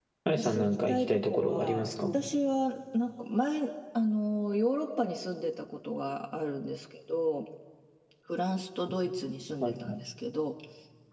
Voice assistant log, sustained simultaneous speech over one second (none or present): present